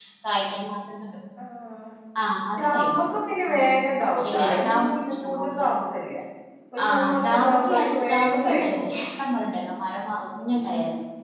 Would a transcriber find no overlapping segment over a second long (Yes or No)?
No